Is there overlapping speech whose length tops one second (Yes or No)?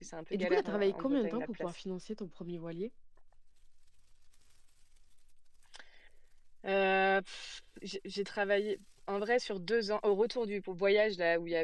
Yes